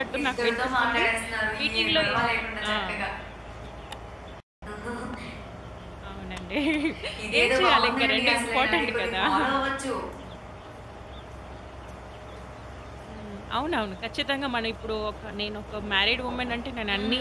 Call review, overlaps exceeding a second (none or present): present